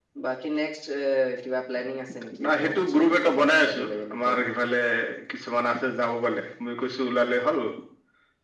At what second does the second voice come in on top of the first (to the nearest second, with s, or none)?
2 s